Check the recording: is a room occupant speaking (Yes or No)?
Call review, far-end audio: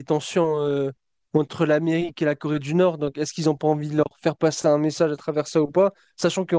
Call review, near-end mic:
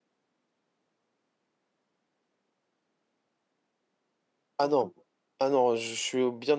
Yes